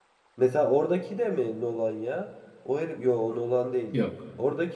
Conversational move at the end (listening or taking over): listening